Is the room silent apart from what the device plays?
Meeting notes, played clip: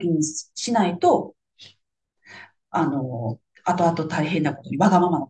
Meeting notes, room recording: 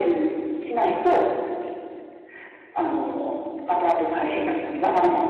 Yes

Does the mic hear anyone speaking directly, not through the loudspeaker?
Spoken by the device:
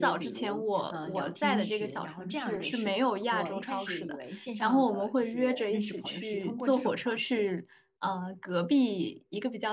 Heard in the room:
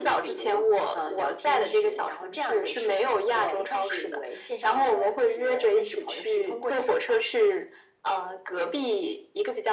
No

